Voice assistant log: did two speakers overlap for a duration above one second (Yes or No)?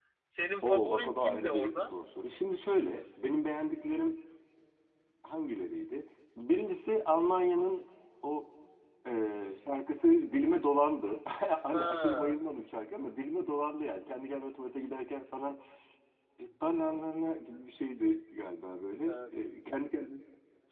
Yes